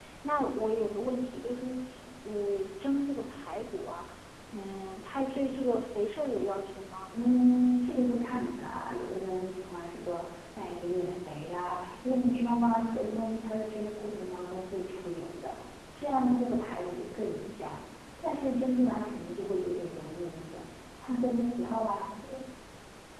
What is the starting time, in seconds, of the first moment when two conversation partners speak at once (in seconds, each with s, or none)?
none